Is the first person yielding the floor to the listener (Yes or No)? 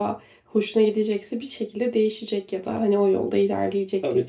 Yes